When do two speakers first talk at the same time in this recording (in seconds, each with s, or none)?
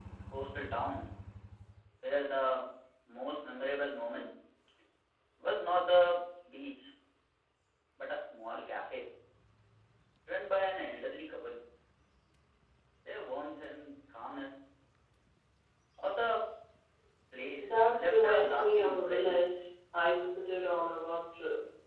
17.6 s